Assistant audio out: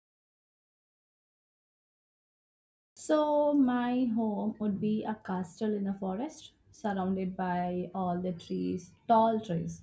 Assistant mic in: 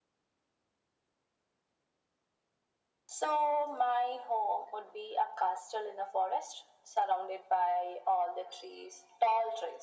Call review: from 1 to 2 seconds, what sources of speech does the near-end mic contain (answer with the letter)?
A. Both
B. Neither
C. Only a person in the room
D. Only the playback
B